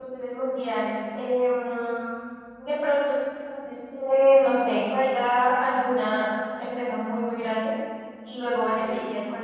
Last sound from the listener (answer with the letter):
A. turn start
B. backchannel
B